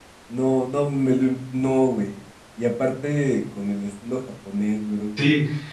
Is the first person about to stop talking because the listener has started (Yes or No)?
Yes